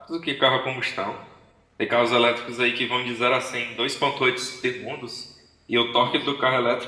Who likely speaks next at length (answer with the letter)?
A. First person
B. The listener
A